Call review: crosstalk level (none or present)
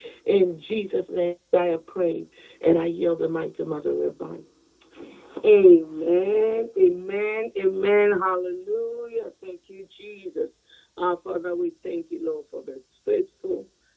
none